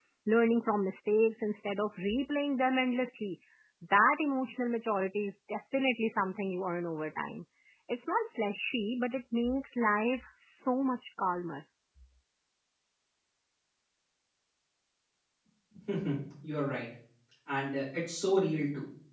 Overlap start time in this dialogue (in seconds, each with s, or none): none